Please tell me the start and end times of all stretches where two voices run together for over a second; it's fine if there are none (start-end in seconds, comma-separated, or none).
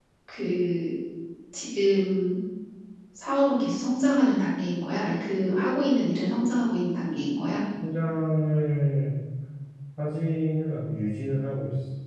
none